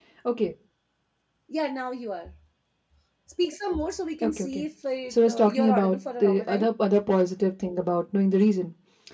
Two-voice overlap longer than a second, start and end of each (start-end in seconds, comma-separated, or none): 5.1-6.7